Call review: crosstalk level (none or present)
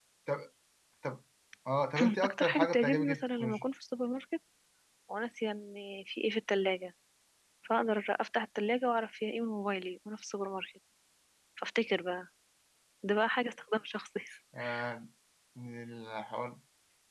present